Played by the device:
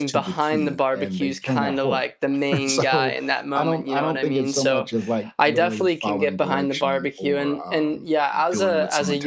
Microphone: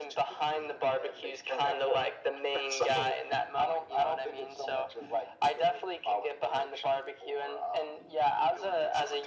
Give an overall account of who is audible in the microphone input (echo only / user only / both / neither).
echo only